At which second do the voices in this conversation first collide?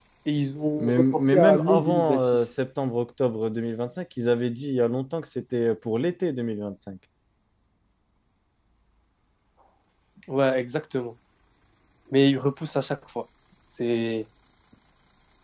1 s

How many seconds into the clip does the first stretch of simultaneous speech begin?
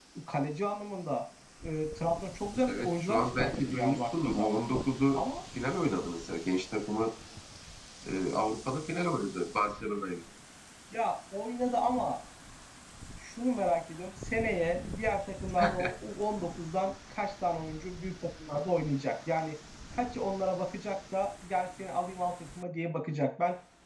3 s

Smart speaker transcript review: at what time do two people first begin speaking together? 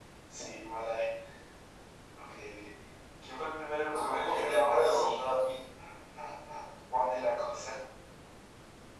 4 s

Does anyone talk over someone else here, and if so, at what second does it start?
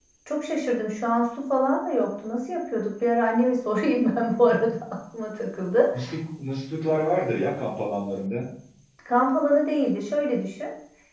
none

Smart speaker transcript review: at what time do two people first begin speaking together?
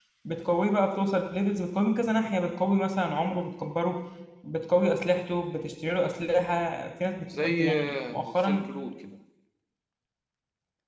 7 s

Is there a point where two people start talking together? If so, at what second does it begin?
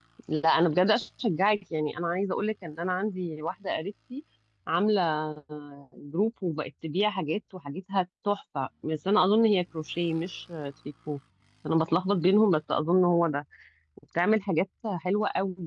none

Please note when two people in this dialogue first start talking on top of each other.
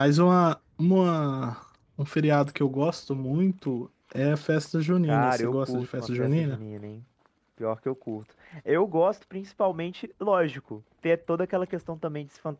5 s

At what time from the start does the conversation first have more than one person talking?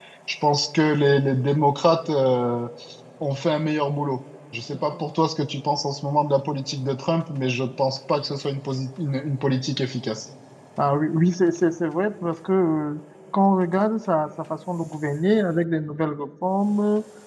none

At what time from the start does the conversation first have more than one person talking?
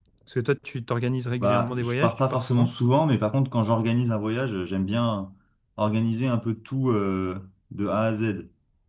1 s

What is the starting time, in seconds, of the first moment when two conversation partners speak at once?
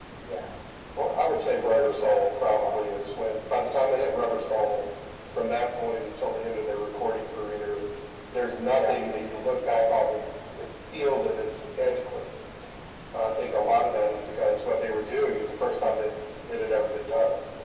2 s

